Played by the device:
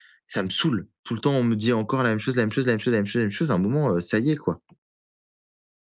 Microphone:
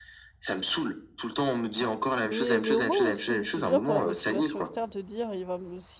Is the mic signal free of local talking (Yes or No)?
No